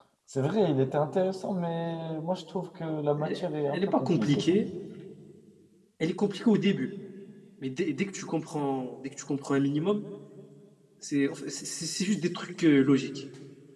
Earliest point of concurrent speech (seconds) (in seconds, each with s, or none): 3.2 s